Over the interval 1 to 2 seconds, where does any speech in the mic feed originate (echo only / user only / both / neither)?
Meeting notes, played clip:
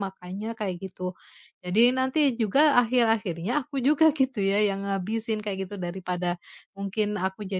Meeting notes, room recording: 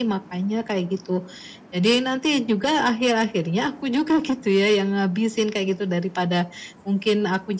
echo only